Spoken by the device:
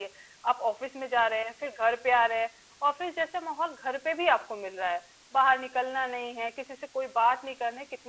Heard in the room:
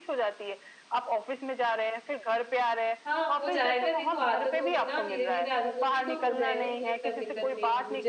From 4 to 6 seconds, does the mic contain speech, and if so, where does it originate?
both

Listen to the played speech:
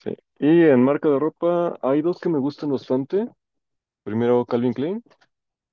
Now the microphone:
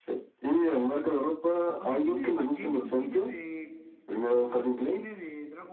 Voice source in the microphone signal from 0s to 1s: echo only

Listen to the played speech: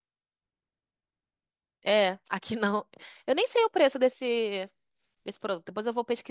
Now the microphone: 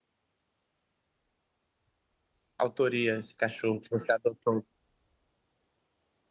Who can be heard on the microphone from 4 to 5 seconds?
user only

